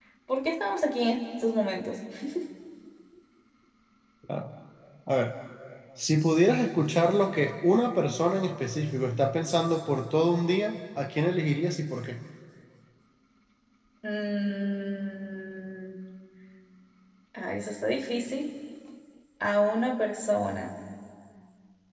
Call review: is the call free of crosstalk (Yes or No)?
Yes